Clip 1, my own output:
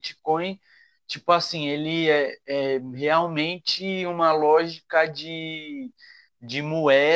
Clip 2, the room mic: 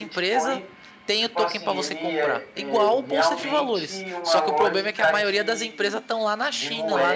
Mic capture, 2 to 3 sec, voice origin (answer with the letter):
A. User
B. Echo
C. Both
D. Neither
C